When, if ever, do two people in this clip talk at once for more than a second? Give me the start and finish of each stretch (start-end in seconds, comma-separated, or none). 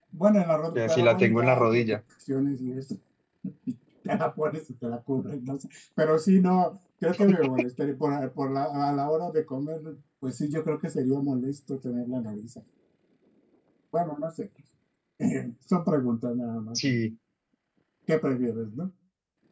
0.8-2.0